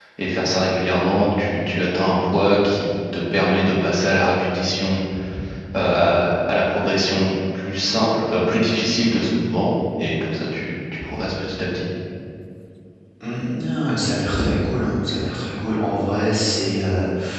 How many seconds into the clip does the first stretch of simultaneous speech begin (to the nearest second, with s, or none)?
none